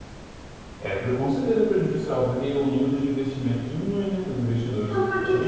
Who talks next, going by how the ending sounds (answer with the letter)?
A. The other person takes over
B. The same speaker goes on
A